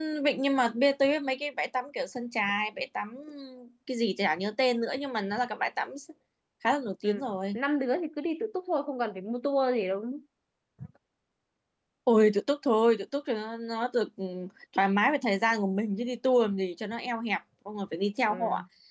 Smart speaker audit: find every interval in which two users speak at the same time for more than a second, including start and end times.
none

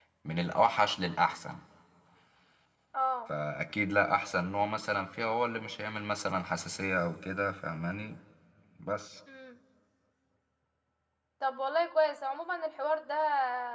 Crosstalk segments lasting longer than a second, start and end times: none

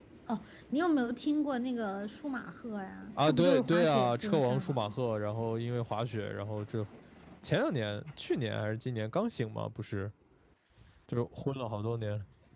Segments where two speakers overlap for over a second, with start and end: 3.2-4.8

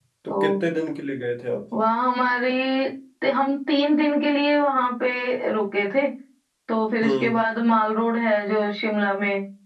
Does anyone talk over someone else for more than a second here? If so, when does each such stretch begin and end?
none

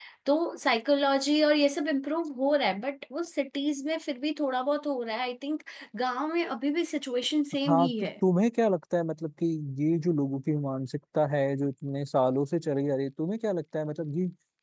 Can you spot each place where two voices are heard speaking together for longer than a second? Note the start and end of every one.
none

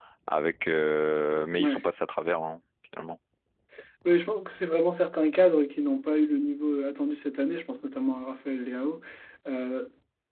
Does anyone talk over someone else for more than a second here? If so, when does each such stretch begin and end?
none

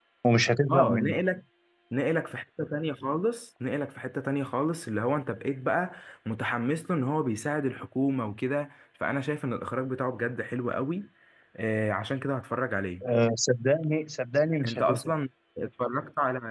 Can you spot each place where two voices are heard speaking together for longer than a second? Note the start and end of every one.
none

